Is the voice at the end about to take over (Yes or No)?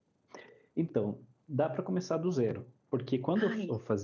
No